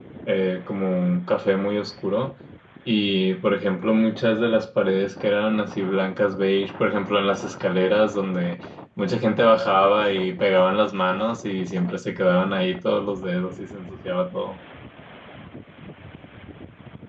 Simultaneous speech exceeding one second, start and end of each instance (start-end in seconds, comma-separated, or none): none